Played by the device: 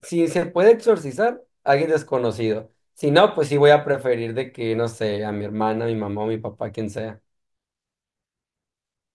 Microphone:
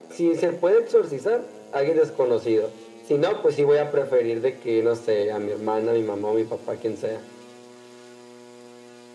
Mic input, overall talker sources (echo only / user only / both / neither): echo only